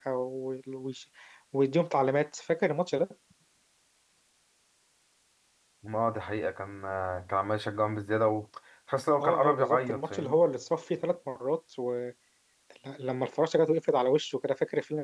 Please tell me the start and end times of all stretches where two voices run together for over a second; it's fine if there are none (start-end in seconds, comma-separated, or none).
9.2-10.4